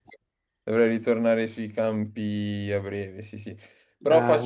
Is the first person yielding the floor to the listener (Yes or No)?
No